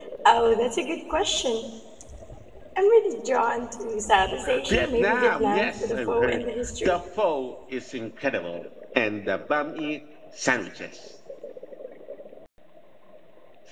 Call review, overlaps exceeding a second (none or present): present